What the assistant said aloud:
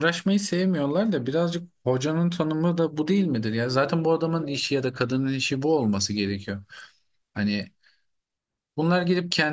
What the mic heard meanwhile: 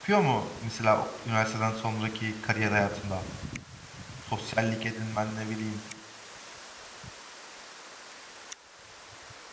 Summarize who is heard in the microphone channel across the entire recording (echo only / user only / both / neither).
user only